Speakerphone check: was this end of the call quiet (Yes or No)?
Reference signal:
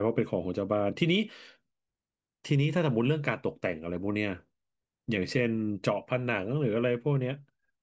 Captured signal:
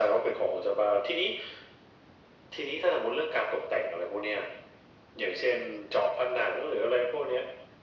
Yes